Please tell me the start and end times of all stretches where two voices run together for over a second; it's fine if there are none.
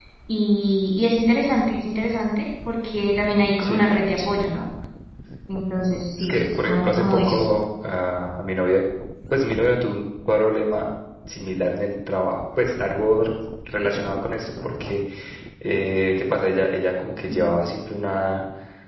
6.2-7.4

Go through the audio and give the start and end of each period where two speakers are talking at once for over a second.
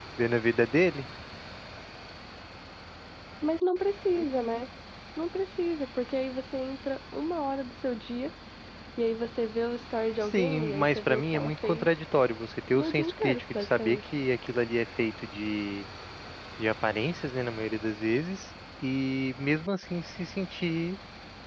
10.2-11.9, 12.8-14.0

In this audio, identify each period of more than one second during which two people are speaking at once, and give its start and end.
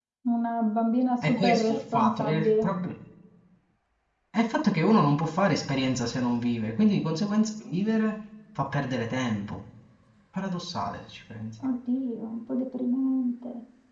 1.3-2.7

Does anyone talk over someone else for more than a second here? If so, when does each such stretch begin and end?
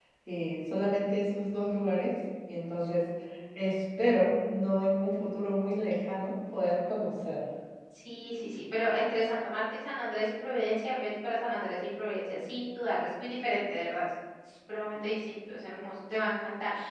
none

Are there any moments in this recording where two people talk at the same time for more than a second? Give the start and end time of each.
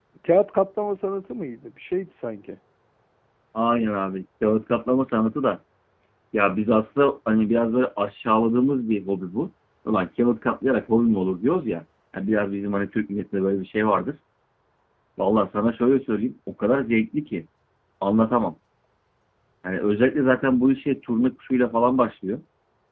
none

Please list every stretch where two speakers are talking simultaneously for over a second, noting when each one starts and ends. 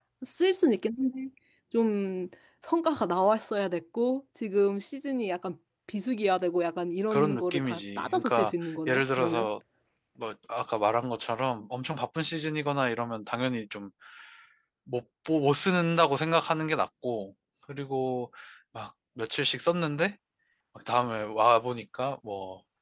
7.1-9.5

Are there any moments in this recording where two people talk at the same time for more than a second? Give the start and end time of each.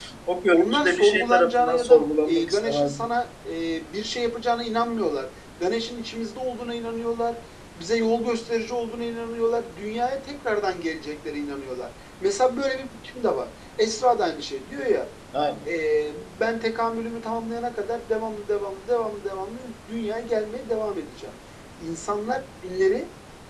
0.5-3.1

